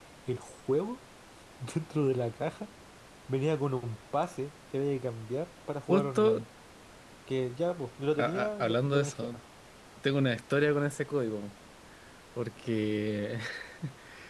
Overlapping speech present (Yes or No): Yes